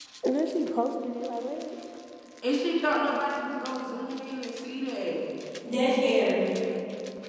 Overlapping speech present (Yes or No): No